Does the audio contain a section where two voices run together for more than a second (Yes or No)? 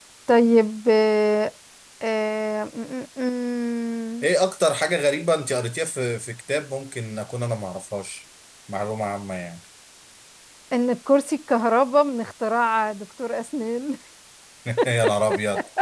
No